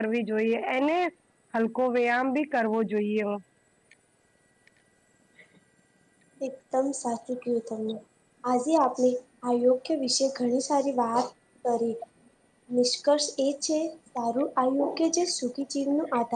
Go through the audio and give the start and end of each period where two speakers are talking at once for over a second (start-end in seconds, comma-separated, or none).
none